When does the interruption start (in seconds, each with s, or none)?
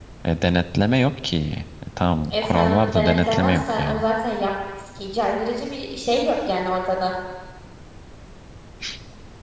2.3 s